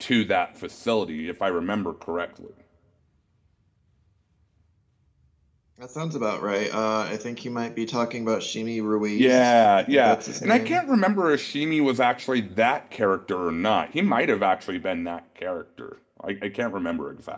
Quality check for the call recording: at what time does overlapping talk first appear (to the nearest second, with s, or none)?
9 s